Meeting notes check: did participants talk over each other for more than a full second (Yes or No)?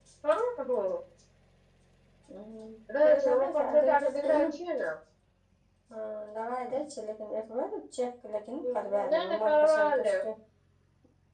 Yes